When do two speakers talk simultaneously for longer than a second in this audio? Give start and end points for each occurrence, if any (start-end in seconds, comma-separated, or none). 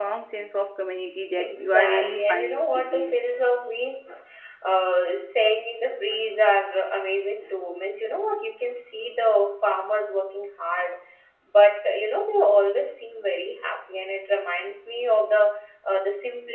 1.4-3.1